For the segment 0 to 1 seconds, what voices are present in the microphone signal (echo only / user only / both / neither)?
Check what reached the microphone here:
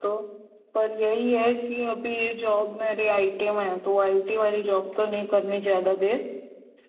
user only